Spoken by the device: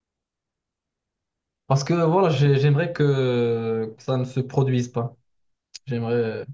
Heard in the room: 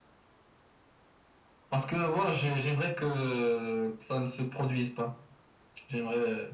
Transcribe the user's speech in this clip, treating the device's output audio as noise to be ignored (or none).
none